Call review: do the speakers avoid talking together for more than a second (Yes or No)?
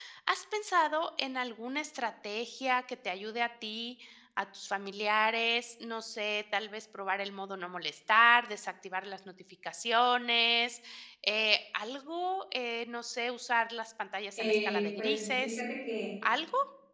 No